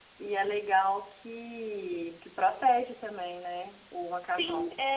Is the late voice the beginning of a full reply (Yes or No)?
Yes